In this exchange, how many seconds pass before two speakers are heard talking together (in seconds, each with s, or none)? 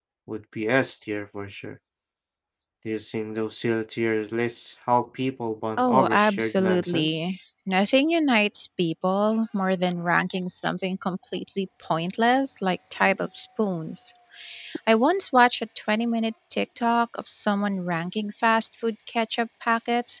5.8 s